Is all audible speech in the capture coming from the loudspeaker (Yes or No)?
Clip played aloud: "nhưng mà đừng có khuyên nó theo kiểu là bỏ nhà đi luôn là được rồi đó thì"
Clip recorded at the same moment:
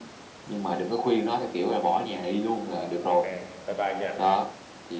No